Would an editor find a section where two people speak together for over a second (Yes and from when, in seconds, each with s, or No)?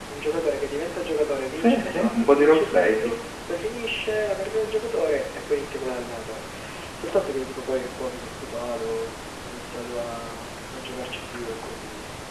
Yes, from 1.6 s